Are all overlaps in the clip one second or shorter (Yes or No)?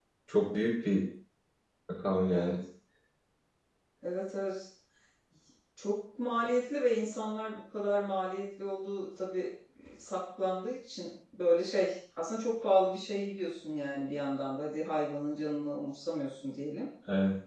Yes